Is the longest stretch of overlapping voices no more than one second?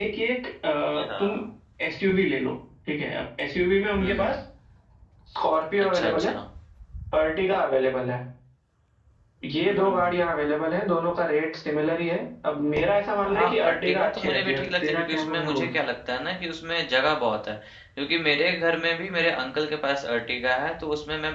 No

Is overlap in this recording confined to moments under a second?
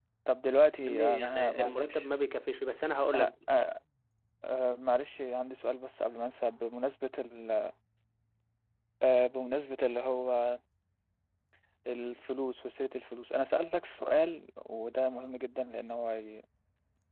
No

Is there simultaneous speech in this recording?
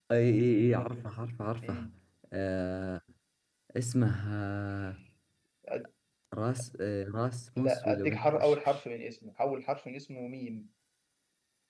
Yes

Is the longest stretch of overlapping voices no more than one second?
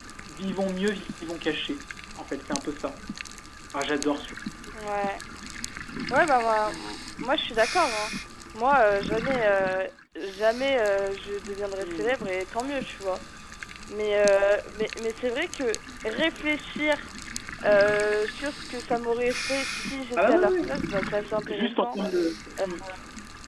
Yes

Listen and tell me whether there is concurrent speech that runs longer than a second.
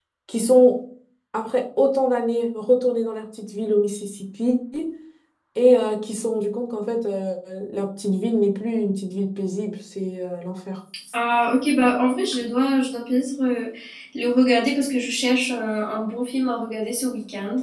No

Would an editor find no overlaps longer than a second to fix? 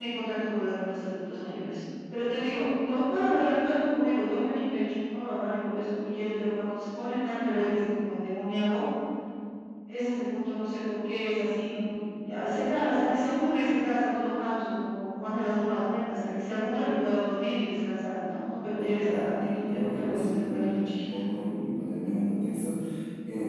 No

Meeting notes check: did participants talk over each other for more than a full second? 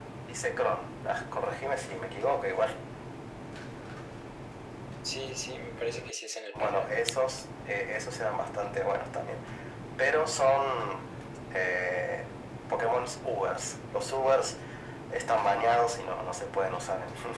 No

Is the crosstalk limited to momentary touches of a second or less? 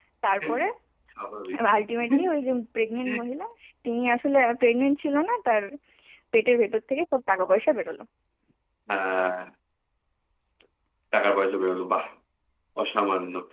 Yes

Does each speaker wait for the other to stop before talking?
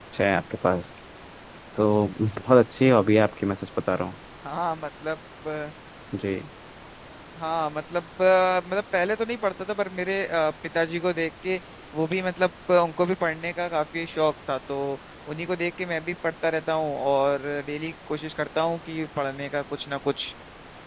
Yes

